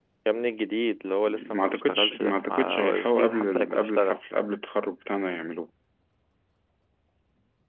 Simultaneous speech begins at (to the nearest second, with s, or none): 1 s